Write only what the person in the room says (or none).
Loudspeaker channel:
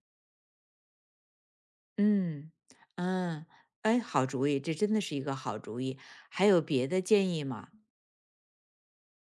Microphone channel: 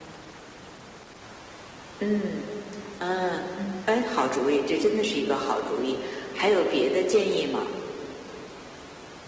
嗯